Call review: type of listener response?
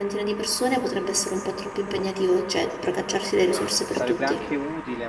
taking over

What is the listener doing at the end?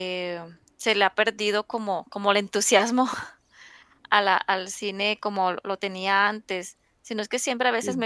listening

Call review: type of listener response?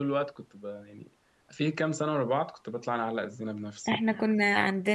taking over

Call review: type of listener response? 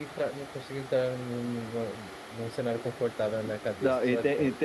taking over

